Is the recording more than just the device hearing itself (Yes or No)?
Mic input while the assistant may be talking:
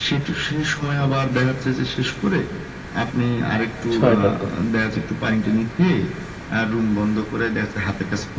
Yes